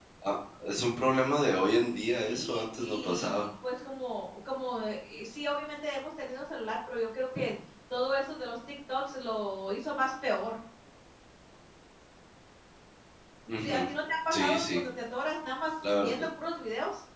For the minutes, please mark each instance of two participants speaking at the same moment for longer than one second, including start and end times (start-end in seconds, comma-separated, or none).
2.1-3.4